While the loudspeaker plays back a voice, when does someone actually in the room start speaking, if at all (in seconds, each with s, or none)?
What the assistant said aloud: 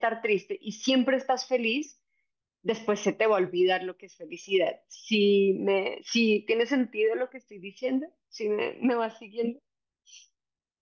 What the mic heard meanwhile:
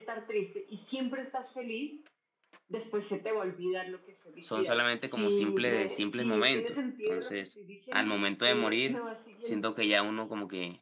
4.4 s